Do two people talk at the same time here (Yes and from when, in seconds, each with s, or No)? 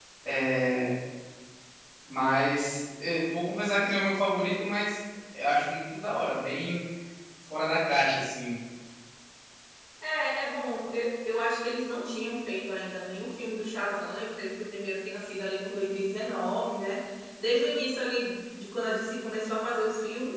No